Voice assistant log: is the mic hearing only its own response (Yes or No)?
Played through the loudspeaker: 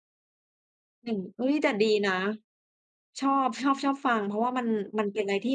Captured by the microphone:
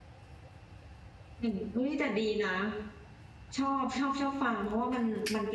Yes